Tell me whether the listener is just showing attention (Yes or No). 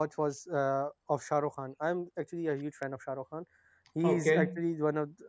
Yes